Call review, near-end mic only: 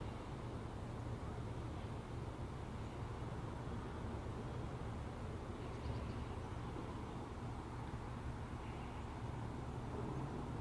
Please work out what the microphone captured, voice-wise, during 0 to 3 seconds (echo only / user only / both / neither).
neither